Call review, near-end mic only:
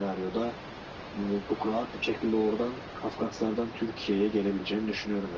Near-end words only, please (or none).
none